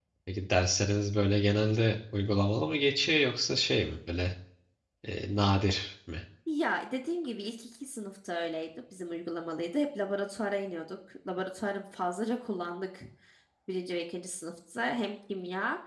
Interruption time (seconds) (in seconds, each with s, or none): none